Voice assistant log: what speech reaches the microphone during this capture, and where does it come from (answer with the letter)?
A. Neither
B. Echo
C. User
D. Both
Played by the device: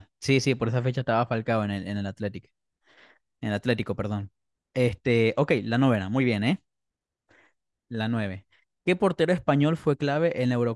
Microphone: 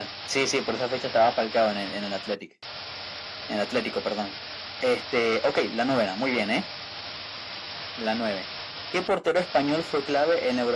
B